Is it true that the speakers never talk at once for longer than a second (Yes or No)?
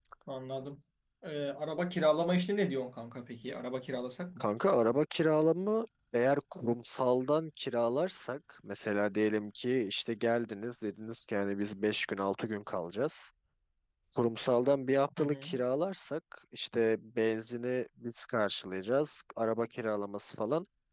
Yes